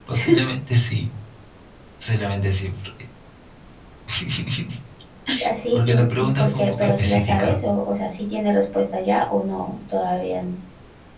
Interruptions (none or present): present